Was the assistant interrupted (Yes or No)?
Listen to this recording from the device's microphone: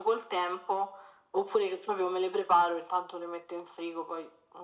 No